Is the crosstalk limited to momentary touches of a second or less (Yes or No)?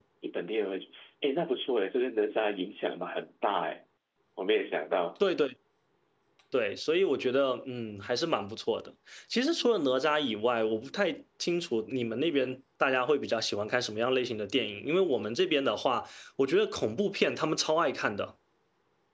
Yes